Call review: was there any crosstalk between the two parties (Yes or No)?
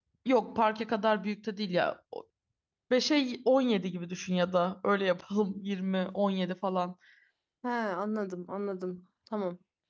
No